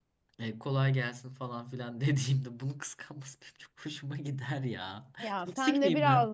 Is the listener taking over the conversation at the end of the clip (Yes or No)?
Yes